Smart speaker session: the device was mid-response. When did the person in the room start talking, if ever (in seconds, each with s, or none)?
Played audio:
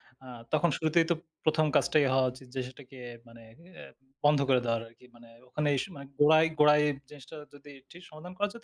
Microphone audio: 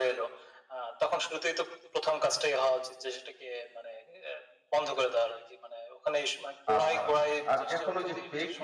6.8 s